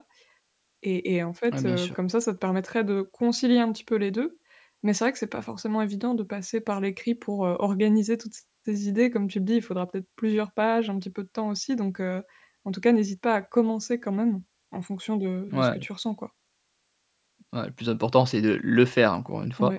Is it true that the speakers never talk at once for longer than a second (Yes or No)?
Yes